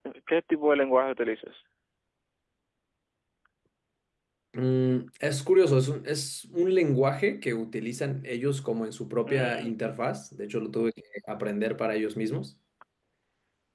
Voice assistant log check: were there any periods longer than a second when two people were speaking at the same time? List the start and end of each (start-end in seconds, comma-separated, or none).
none